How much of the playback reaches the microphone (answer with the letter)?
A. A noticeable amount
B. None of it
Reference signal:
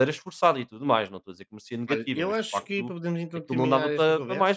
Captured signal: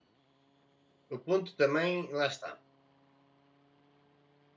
B